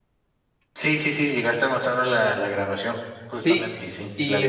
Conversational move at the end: taking over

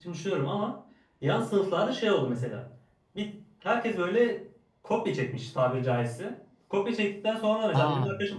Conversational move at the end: listening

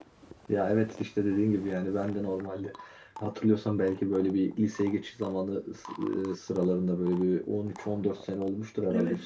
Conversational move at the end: listening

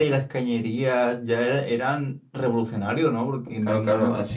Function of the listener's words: taking over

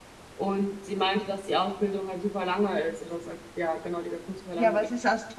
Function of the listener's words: taking over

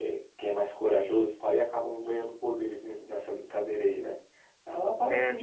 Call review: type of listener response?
listening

